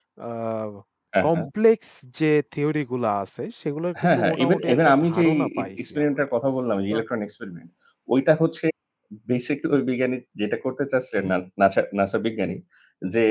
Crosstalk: present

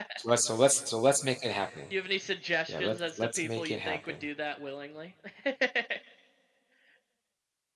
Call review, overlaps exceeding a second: present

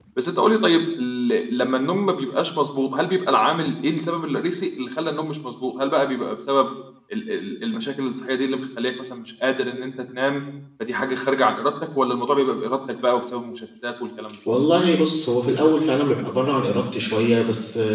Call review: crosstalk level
none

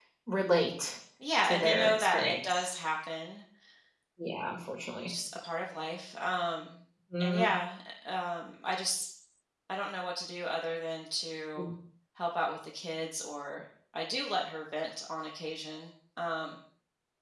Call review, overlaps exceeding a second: present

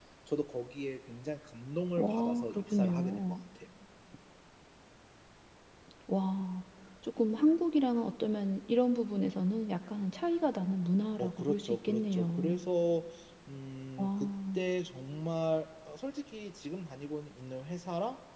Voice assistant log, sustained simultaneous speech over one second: present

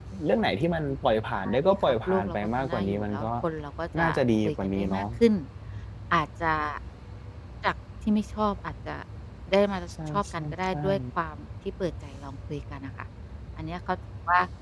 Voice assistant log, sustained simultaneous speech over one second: present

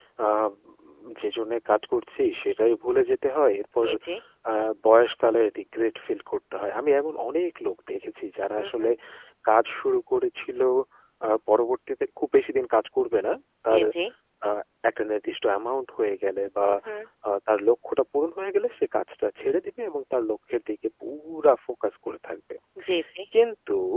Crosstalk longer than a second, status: none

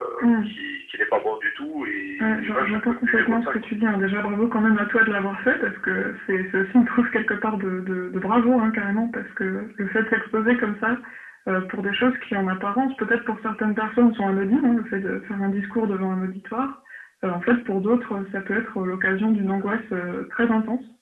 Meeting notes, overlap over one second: present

